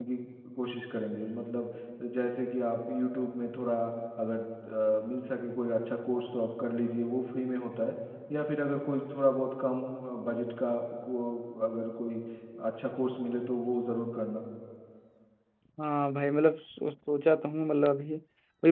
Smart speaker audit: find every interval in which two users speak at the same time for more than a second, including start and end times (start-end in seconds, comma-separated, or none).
none